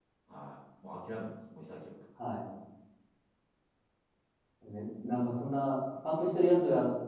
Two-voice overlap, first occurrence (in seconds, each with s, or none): none